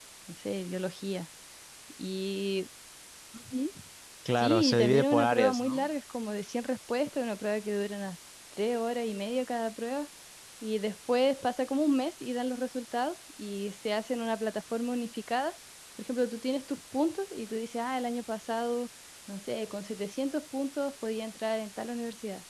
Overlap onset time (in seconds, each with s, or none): 4.4 s